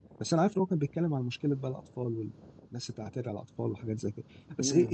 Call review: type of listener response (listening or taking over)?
listening